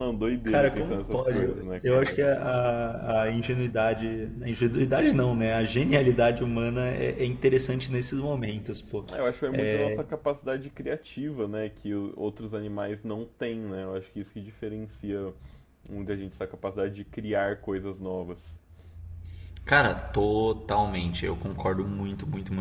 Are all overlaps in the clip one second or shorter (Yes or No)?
No